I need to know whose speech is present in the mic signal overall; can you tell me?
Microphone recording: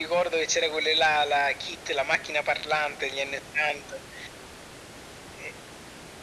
echo only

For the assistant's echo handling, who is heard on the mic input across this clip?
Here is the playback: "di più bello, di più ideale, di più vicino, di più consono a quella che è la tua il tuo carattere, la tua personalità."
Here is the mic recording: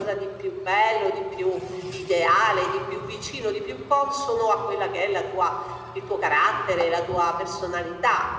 echo only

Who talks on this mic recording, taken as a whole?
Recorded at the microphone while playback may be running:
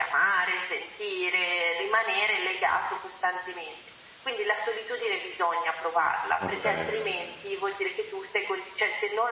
both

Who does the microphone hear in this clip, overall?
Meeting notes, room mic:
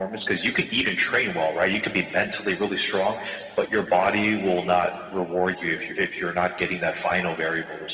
echo only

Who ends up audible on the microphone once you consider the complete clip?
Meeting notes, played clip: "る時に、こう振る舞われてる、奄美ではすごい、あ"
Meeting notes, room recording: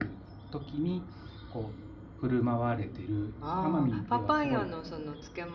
both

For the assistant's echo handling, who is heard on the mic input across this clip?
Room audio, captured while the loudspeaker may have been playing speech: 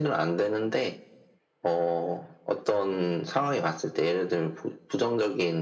echo only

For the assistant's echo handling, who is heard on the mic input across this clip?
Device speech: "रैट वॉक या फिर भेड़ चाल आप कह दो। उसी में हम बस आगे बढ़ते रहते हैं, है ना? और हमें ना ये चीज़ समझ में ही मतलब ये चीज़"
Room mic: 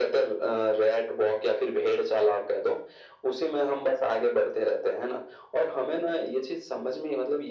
echo only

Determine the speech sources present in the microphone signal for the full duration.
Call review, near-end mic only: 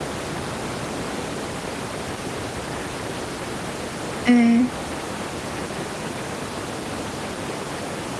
user only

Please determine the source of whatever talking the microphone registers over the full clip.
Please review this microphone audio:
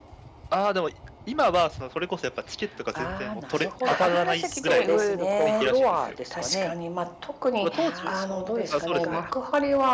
both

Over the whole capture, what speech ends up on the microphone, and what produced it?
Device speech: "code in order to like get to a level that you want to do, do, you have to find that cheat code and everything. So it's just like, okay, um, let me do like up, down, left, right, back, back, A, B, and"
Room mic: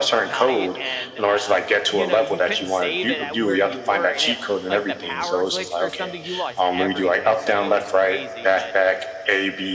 both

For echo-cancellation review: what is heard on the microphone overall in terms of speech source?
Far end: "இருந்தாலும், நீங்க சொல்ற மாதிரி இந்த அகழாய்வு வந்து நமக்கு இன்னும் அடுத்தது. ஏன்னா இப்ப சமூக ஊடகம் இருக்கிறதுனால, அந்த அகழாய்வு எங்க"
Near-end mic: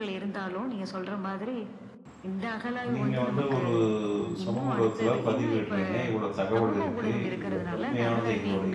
both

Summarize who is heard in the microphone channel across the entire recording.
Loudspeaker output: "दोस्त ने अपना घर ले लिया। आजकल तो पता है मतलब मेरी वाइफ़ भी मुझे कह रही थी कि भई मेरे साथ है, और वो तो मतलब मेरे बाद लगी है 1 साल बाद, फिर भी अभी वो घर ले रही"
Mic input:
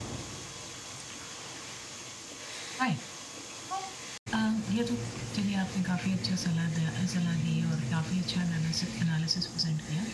user only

